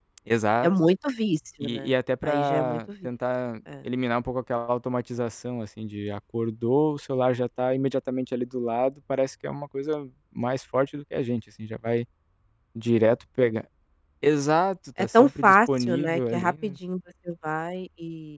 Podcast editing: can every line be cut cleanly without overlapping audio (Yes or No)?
No